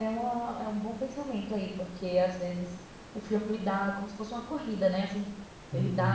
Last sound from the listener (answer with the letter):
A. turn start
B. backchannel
B